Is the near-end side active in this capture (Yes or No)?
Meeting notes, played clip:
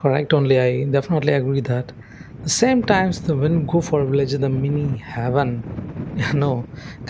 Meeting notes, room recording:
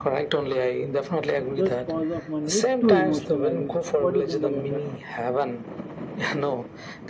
Yes